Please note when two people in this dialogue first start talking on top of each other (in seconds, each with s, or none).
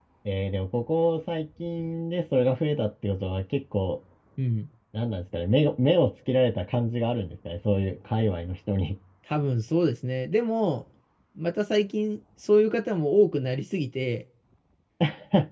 none